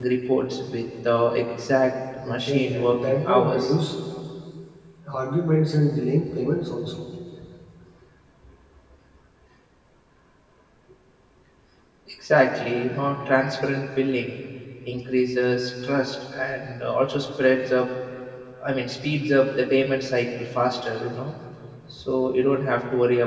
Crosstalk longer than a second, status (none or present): present